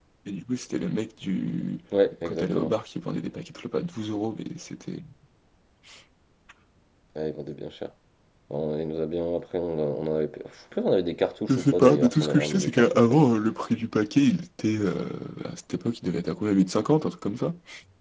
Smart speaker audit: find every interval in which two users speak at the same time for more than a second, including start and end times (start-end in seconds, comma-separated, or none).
11.5-13.3